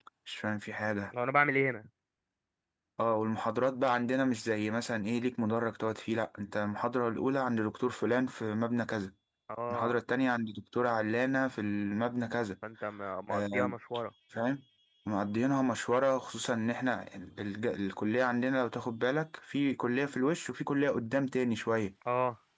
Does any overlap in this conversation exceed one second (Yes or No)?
No